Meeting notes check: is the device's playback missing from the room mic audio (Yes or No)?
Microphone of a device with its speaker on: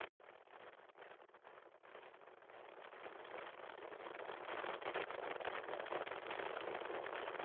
Yes